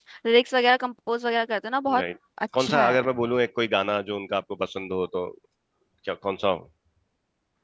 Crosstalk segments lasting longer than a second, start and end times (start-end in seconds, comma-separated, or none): none